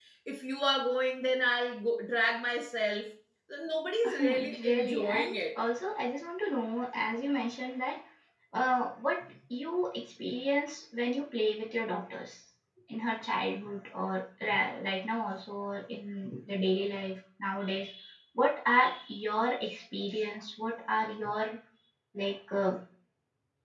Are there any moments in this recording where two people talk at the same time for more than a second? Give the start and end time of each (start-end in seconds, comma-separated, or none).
4.2-5.6